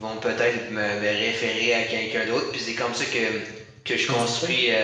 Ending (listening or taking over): listening